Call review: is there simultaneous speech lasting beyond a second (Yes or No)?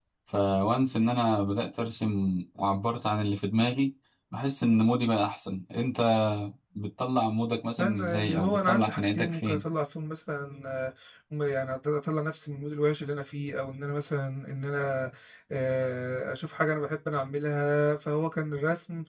Yes